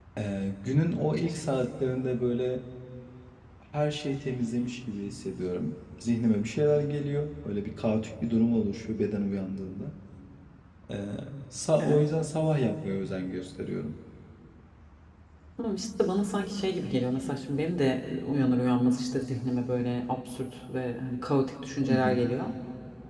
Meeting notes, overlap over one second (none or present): none